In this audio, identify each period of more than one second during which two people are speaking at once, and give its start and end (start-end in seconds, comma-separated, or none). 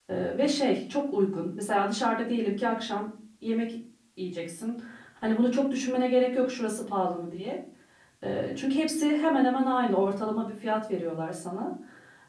none